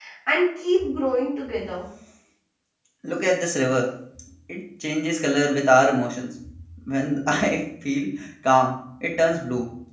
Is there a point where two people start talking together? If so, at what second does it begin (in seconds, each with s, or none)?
none